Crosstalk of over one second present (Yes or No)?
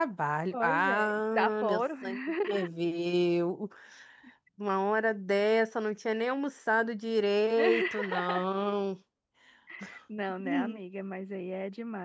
Yes